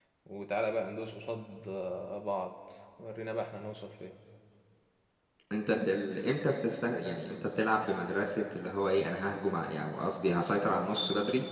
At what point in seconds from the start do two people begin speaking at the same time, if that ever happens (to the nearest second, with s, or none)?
none